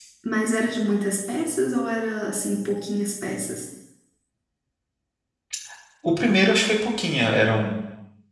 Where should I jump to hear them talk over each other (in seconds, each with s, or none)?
none